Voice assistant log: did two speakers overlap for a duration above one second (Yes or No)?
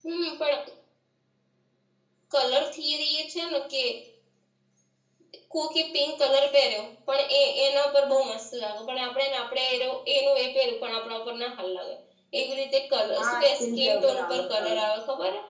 Yes